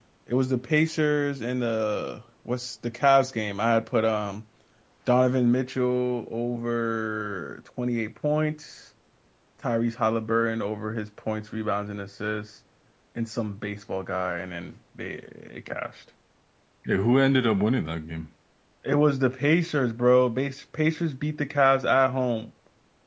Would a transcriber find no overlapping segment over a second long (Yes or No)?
Yes